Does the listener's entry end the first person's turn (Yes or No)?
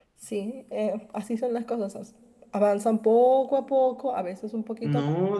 Yes